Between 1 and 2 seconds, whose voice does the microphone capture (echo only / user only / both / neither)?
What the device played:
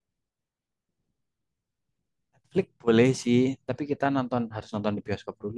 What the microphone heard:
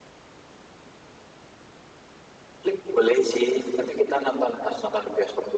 neither